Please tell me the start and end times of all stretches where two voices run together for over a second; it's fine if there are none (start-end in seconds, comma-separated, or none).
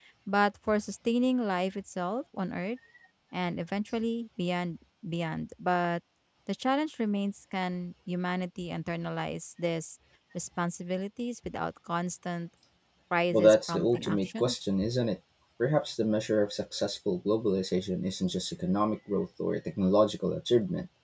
13.3-14.5